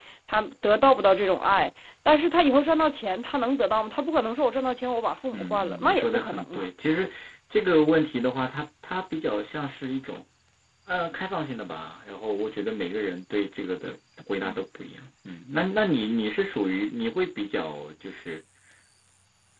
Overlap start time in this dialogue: 5 s

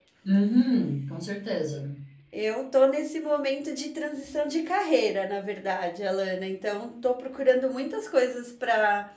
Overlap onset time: none

